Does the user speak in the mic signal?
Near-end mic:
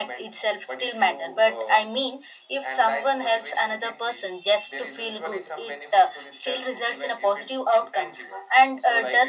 No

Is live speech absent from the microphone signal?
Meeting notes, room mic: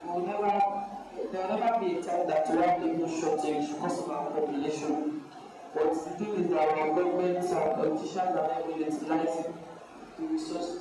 Yes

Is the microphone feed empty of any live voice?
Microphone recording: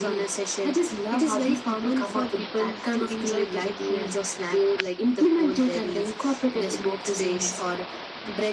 Yes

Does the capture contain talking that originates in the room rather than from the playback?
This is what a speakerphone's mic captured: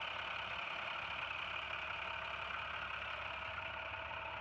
No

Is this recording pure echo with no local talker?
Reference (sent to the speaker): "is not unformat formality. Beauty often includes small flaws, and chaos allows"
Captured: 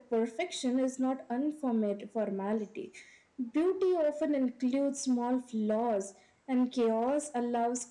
Yes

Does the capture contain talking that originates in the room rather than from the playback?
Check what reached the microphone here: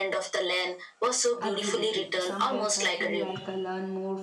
Yes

